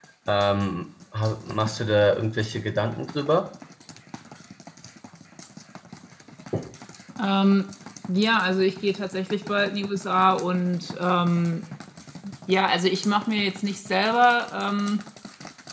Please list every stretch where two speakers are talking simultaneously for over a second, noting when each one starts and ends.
none

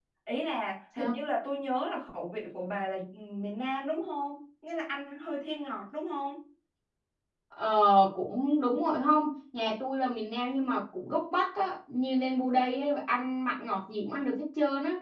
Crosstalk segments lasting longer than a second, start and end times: none

